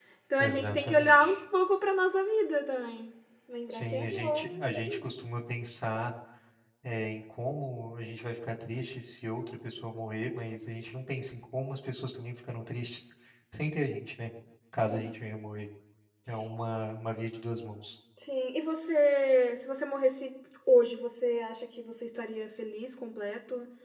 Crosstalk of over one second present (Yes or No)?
Yes